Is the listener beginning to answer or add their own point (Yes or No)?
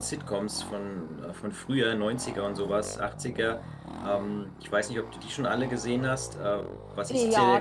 Yes